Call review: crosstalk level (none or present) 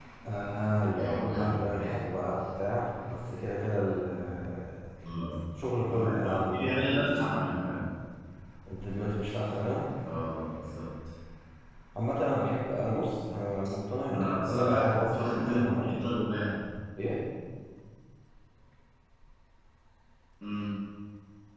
present